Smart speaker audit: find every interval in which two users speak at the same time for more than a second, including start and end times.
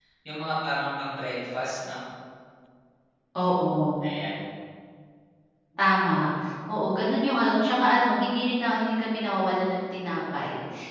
none

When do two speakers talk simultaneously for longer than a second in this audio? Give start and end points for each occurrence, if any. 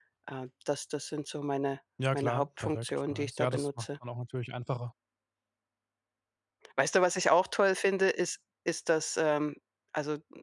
2.1-3.9

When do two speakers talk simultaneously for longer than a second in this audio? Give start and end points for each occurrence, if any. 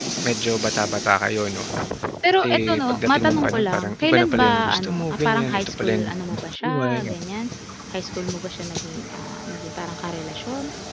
2.4-7.1

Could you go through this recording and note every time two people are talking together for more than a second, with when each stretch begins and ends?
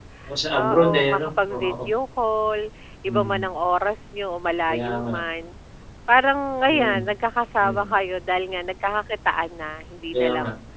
0.6-1.9

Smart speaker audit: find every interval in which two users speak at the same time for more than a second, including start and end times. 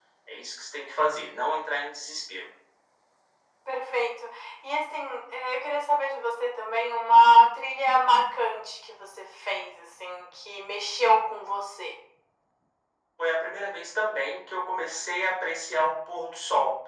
none

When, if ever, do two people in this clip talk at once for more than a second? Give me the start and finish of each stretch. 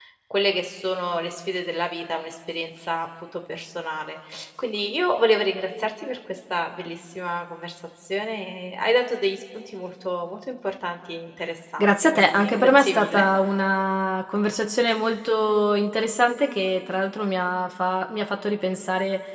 11.8-13.2

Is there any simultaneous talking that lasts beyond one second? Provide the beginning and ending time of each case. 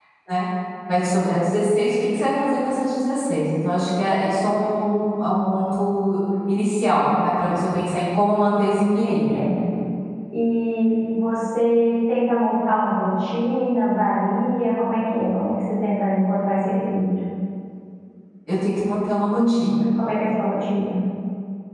none

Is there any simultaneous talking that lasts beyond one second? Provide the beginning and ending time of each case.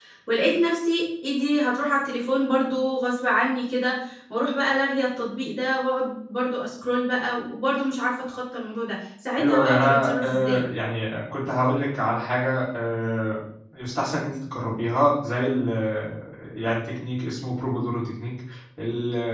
9.4-10.6

